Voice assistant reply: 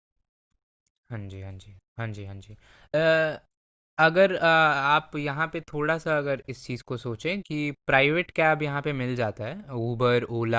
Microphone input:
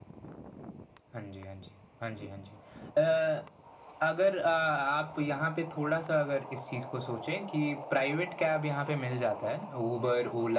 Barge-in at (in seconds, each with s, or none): none